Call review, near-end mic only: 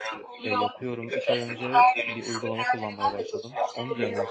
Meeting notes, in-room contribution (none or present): present